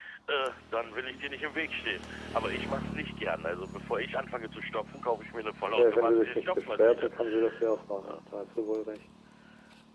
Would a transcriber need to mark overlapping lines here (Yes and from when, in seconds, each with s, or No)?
Yes, from 5.8 s